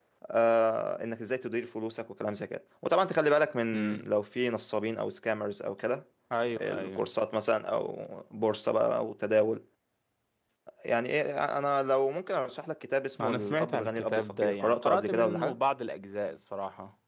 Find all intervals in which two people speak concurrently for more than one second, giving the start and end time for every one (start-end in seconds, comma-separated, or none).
13.2-15.5